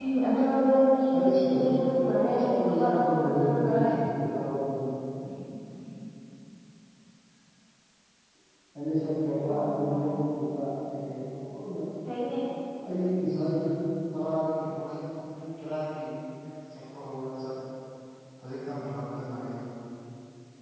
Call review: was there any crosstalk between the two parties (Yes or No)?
Yes